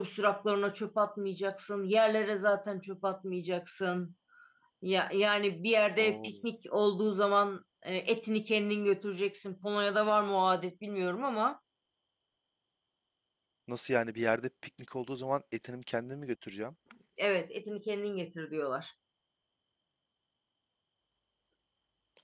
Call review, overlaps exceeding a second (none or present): none